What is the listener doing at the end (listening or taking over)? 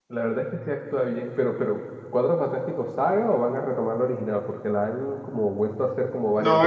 taking over